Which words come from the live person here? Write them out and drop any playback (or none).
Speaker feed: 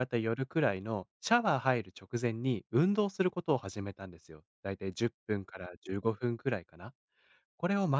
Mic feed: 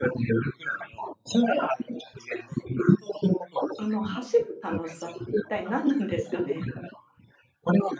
あの、走る楽しさって一体何なんですかね？